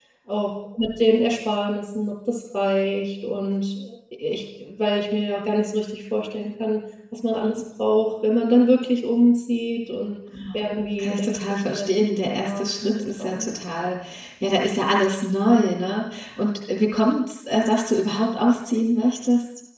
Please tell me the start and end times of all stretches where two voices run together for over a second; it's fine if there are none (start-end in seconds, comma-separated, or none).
11.0-13.5